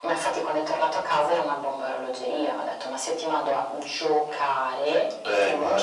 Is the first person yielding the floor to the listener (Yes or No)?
No